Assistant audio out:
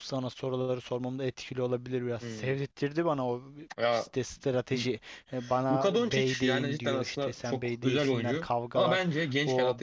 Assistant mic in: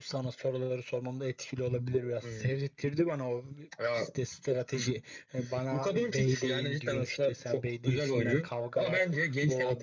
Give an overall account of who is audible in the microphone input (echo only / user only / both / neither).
echo only